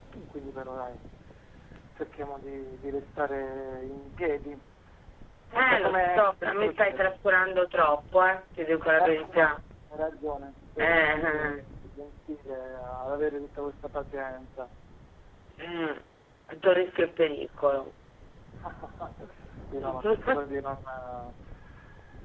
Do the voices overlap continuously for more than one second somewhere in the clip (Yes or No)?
Yes